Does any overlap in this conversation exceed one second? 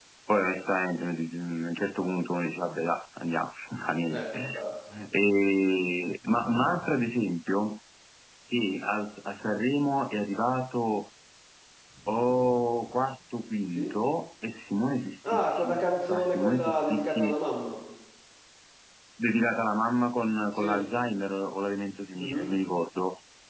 Yes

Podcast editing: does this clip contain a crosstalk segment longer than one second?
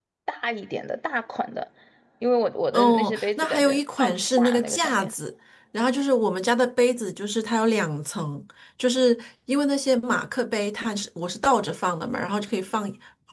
Yes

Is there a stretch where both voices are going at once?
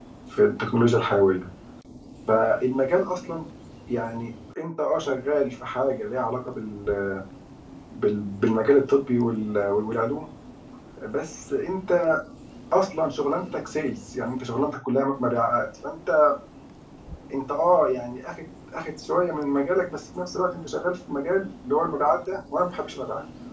No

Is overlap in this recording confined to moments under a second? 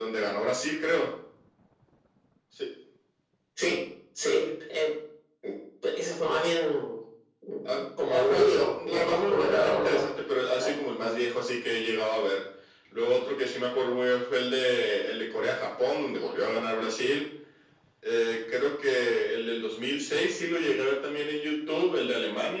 No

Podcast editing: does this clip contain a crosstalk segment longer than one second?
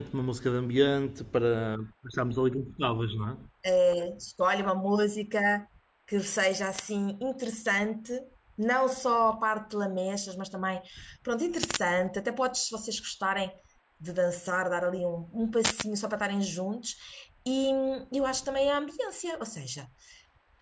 No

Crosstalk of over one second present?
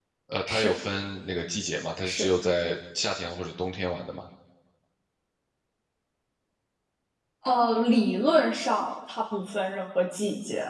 No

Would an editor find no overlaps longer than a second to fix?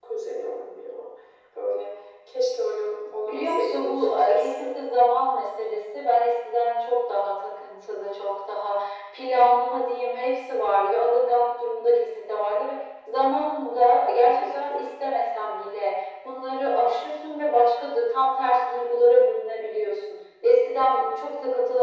No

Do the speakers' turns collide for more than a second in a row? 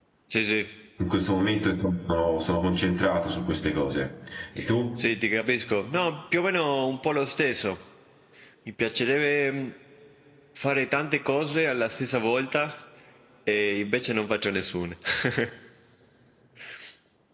No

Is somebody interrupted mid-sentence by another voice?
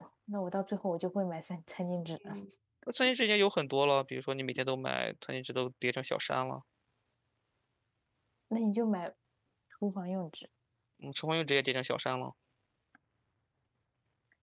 No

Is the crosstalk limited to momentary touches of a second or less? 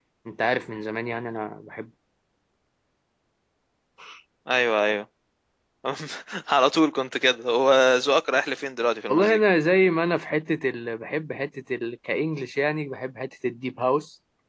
Yes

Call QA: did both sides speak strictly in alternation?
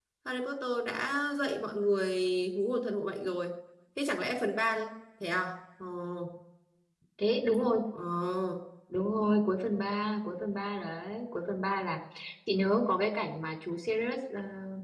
Yes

